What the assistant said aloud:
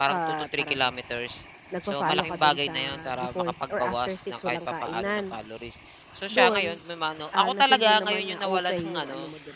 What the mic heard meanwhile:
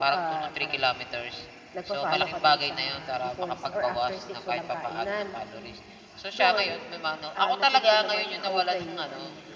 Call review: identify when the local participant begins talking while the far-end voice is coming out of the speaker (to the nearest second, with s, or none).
none